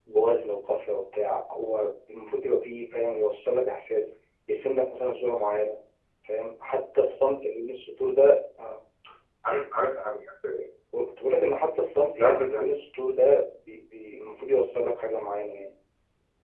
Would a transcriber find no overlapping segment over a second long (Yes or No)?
Yes